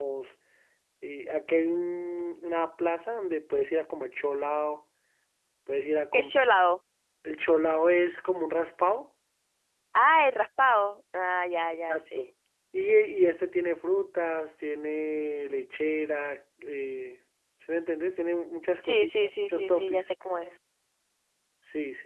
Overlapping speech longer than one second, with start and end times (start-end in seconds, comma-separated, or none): 18.8-20.1